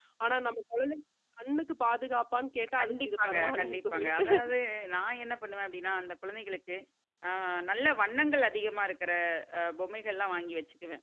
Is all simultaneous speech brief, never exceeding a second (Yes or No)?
No